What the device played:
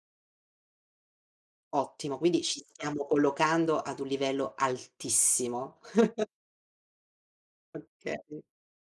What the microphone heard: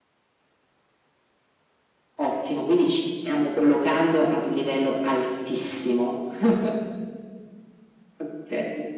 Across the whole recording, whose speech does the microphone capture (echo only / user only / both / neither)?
echo only